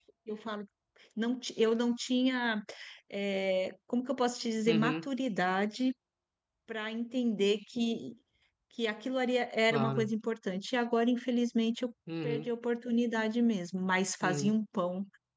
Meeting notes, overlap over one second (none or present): none